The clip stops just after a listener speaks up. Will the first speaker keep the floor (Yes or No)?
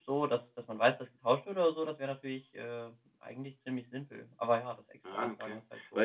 No